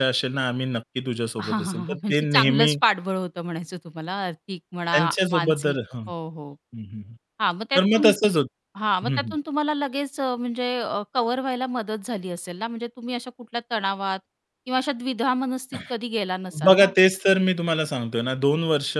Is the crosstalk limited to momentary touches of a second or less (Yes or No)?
No